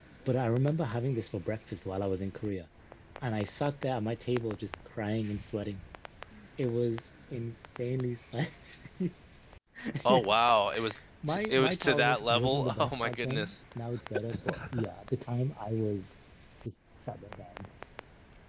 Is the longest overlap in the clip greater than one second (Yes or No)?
Yes